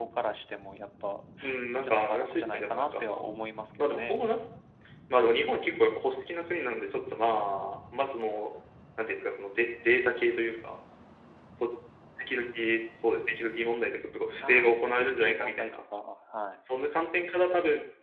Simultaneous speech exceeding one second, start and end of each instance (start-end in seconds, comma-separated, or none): 1.7-3.2, 14.4-15.8